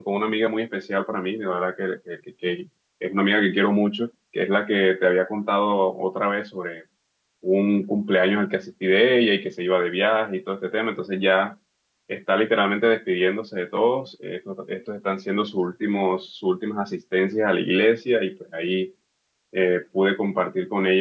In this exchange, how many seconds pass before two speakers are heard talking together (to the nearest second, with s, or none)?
none